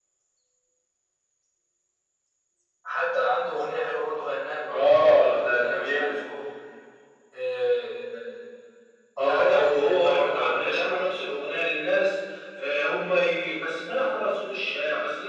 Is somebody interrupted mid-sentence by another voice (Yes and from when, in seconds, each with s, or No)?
Yes, from 4.7 s